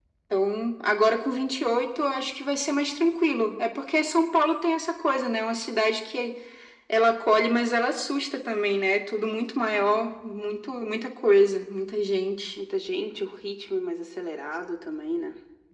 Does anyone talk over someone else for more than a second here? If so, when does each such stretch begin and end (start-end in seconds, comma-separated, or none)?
none